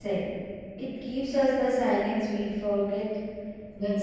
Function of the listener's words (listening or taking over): taking over